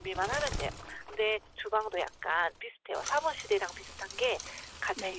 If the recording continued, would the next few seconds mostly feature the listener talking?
No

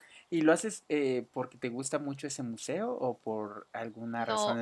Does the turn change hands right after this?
Yes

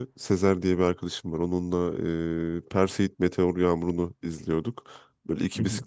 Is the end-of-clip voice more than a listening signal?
No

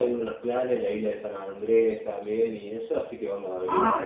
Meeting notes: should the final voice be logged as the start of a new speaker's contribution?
Yes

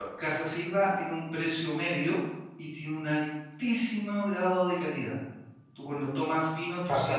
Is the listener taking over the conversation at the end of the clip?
No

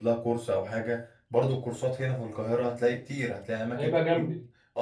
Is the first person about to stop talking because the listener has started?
No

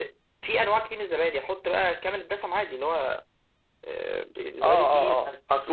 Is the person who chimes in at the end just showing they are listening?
No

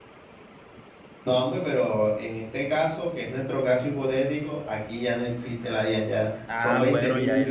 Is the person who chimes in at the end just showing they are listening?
No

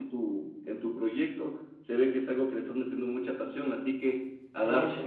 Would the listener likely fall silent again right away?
Yes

